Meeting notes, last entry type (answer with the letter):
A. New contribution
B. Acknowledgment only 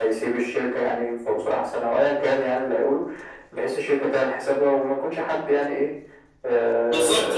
A